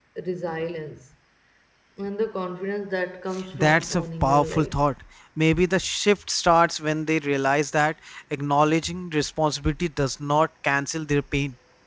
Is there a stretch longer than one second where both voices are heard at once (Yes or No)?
Yes